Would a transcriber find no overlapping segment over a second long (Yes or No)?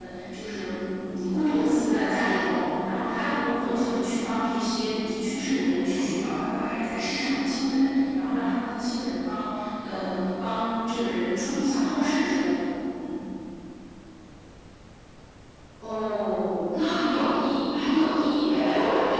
Yes